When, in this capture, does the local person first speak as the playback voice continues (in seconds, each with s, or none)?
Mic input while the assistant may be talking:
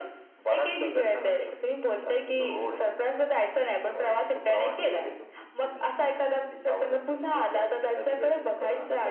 none